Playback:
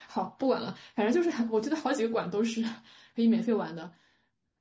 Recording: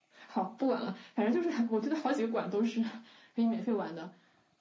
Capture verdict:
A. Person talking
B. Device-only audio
B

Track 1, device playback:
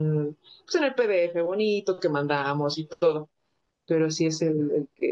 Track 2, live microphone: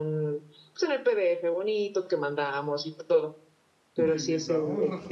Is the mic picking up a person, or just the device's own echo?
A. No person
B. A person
B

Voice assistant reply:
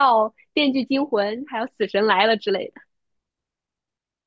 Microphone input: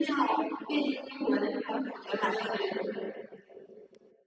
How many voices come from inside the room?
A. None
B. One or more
B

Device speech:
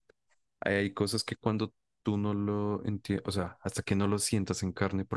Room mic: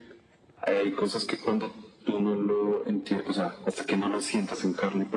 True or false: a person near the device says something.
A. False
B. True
A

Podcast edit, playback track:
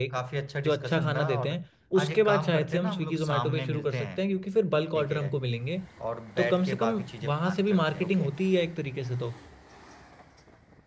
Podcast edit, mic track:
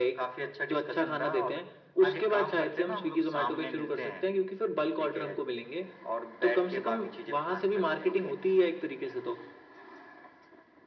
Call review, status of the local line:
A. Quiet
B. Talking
A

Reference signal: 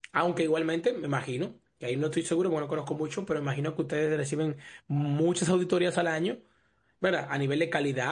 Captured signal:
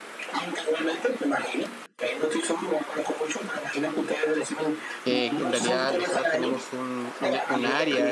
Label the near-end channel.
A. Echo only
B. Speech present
B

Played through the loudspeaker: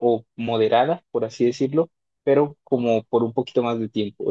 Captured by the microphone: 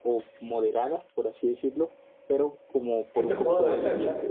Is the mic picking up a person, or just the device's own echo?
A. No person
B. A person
B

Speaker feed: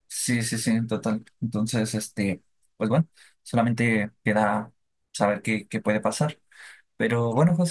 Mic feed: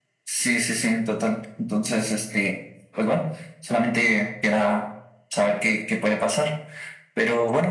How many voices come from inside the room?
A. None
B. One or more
A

